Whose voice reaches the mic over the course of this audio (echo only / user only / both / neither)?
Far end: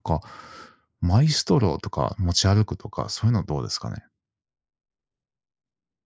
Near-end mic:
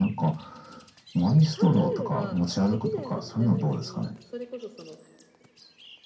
both